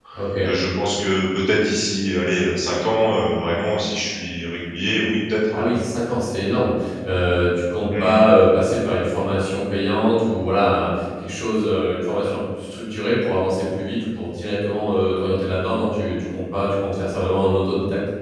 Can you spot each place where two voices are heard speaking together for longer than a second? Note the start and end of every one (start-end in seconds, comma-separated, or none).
none